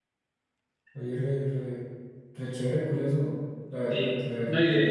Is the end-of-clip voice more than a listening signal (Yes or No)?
Yes